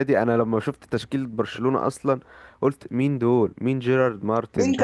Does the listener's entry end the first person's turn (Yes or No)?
Yes